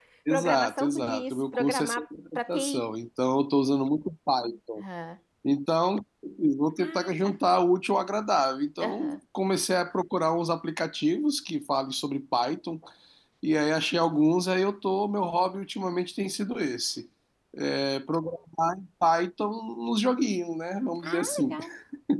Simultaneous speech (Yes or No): Yes